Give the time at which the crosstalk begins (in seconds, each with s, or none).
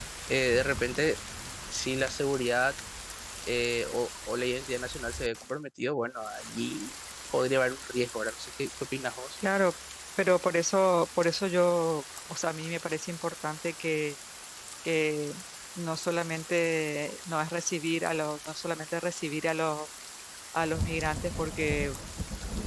none